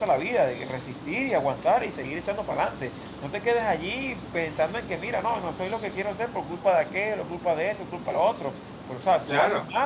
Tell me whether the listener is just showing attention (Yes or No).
No